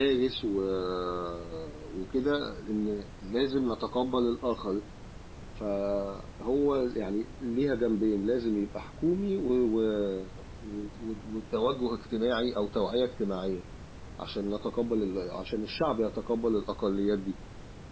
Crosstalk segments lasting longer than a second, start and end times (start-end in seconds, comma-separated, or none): none